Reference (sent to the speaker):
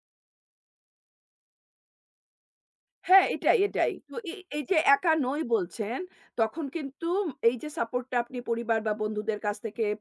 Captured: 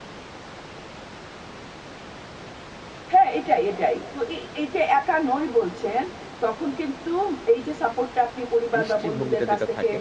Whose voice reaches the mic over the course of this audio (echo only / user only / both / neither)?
both